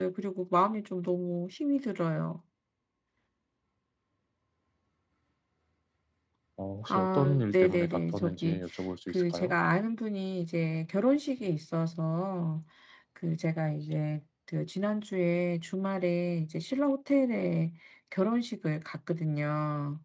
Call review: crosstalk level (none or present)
present